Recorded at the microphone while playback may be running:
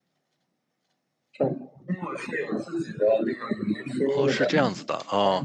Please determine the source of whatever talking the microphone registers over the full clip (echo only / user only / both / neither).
both